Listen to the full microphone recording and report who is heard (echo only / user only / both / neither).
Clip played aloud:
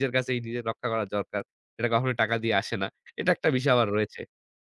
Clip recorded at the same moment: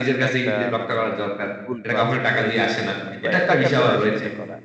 both